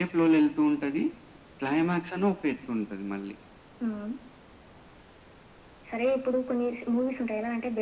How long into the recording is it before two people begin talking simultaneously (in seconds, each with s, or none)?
none